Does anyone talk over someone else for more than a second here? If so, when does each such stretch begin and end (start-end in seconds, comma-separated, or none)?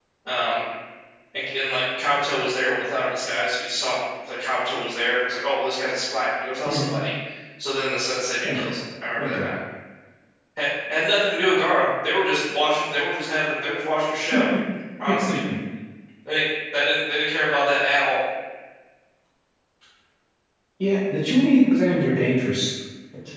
none